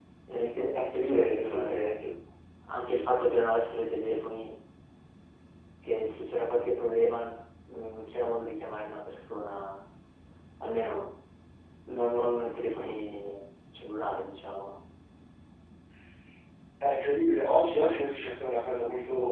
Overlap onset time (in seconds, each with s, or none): 0.7 s